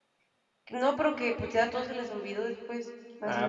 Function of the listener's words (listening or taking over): taking over